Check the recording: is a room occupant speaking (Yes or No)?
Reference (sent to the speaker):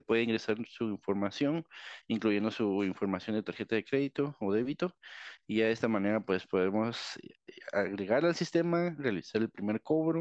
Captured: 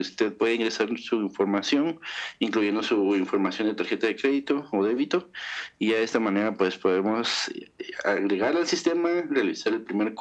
No